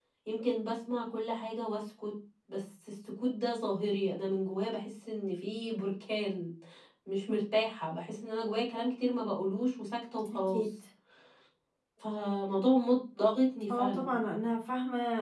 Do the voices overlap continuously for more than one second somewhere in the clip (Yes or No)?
No